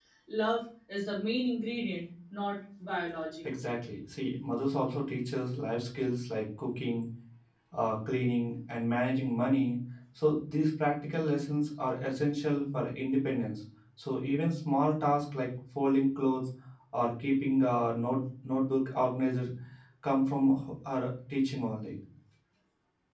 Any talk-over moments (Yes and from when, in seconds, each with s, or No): No